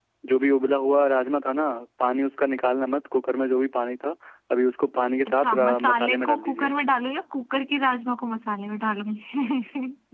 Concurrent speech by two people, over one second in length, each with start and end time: 5.3-6.7

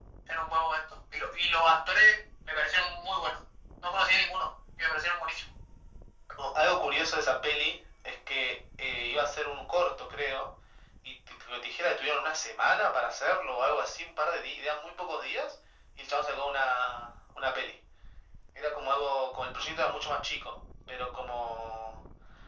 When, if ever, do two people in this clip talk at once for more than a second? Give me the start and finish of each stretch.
none

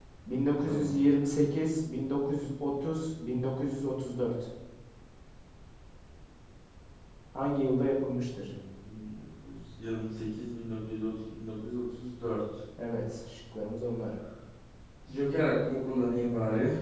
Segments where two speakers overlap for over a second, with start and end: none

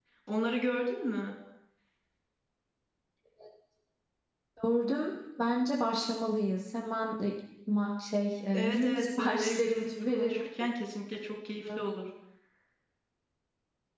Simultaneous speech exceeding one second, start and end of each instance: 8.5-10.5

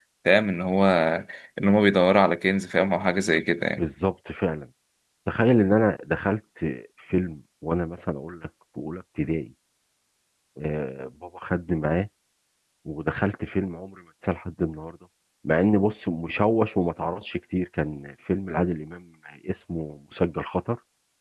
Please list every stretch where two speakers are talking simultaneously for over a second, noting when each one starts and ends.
none

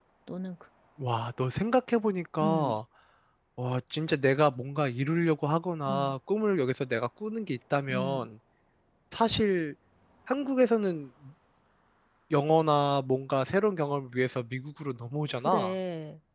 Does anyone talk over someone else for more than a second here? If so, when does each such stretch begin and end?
none

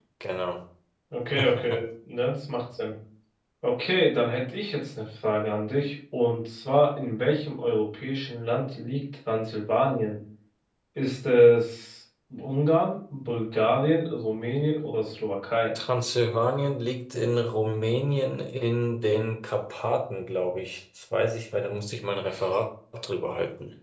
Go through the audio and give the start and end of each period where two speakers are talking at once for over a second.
none

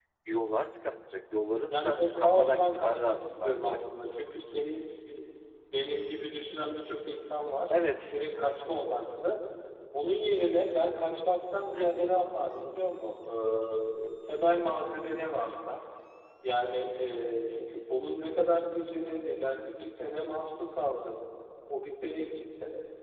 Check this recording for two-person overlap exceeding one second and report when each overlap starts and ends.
1.6-3.8

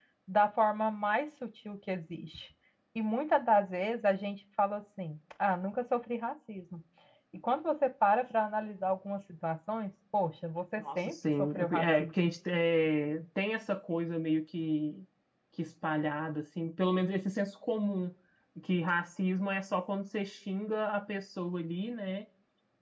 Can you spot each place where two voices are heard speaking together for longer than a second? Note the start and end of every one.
10.8-12.1

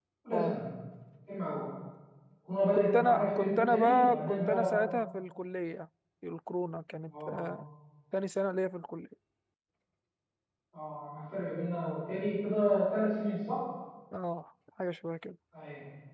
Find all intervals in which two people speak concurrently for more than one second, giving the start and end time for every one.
2.7-4.9

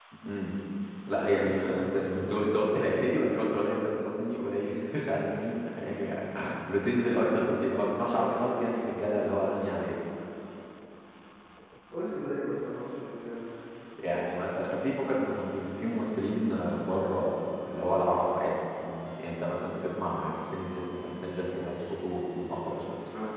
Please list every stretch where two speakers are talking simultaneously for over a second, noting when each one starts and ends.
1.1-2.3

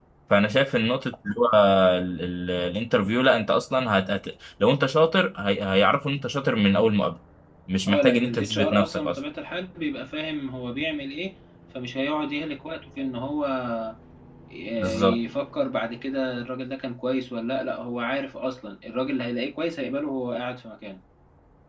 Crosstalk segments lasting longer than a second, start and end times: 7.9-9.2

